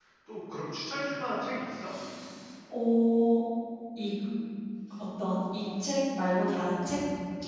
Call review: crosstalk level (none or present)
none